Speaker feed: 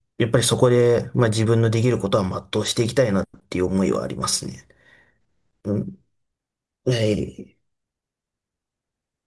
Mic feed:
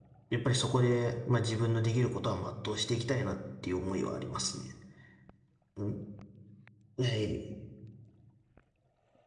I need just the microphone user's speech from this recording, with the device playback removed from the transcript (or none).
none